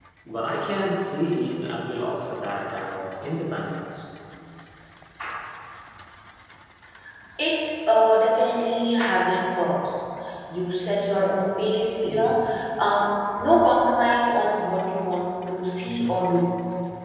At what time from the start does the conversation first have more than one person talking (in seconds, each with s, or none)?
none